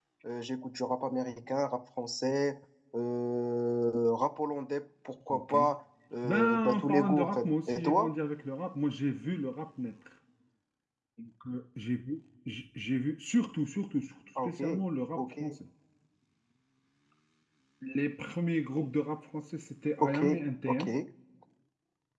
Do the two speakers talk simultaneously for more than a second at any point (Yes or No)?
Yes